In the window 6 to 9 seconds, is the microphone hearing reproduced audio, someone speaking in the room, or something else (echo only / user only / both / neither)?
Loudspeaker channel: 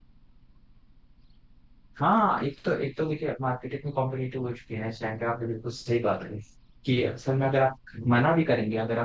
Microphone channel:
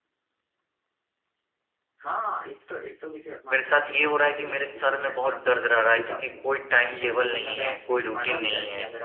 both